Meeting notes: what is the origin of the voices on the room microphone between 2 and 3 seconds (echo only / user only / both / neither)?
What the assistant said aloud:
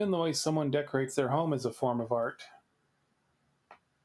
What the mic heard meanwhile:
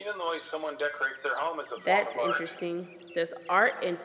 both